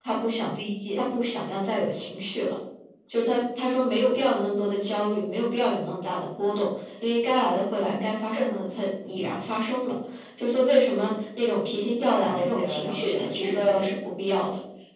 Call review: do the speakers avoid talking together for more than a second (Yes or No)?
No